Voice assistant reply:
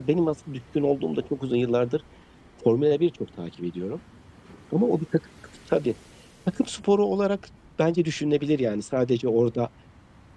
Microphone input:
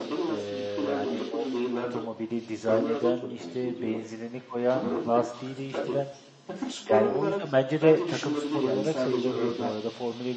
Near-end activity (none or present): present